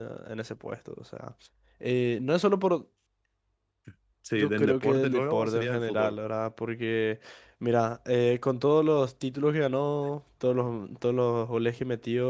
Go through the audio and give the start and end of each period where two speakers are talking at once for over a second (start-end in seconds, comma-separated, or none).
4.4-6.1